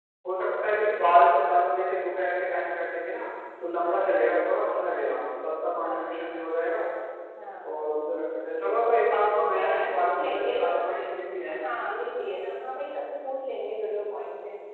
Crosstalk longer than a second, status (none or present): present